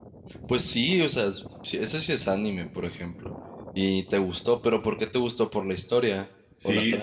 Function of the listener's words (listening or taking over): taking over